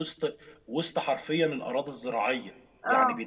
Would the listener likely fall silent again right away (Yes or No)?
Yes